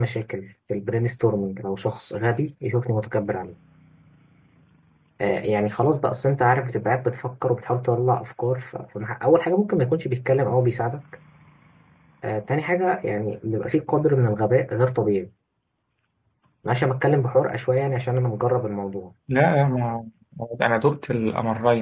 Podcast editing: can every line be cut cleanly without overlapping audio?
Yes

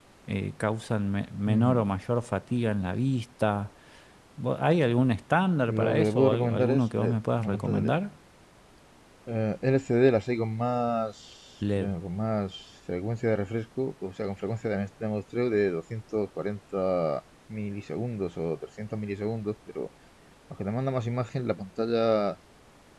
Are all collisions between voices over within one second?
No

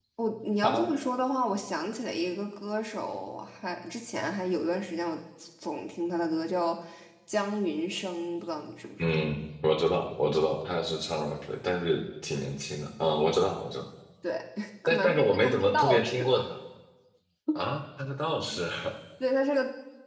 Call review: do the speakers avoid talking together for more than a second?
No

